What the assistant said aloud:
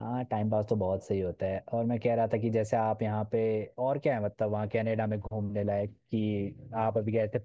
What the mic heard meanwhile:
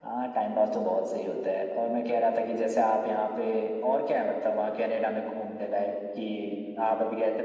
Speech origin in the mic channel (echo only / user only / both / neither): echo only